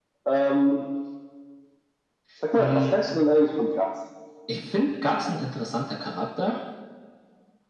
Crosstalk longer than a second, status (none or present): none